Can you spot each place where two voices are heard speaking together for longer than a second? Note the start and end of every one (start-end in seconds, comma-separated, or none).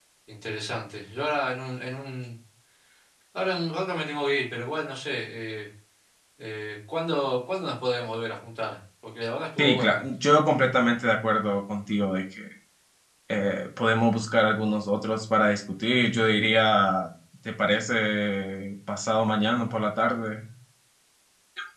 none